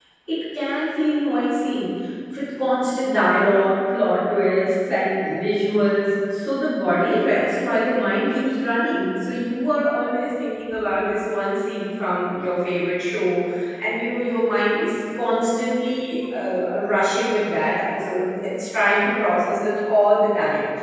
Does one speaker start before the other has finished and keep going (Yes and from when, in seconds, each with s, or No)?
No